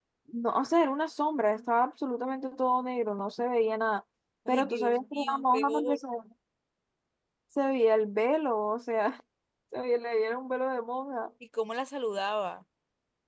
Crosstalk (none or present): present